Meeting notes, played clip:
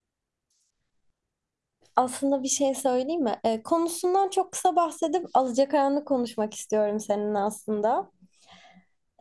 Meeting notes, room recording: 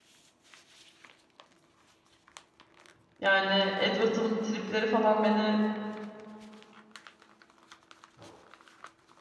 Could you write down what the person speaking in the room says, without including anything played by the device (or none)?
Yani Edward'ın tripleri falan beni